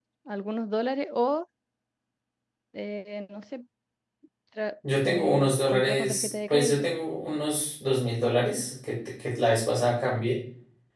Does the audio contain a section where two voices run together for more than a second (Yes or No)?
Yes